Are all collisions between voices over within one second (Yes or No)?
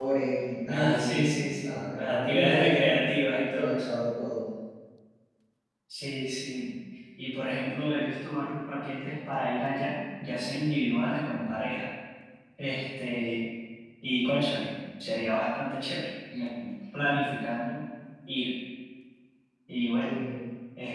No